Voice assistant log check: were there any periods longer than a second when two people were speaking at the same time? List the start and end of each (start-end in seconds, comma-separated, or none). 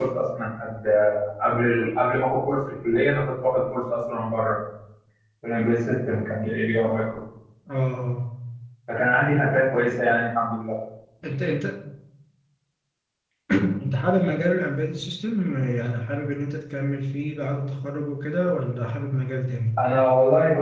none